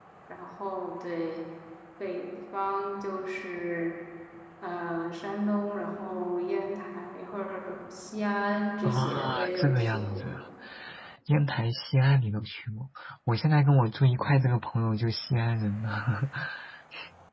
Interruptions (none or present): present